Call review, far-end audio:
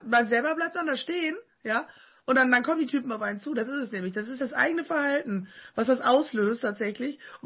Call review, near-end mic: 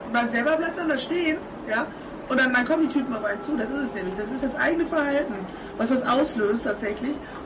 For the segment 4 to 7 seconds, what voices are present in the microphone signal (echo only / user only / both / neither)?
echo only